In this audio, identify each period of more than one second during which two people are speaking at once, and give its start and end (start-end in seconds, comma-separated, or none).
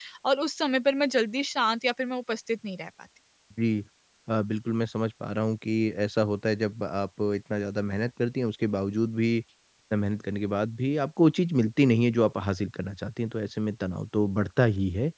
none